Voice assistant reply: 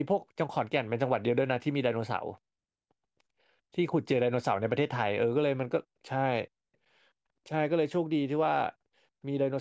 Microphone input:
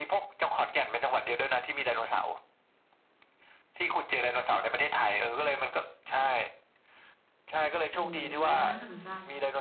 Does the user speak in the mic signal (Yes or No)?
Yes